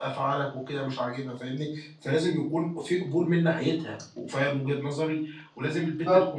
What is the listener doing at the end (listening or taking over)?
listening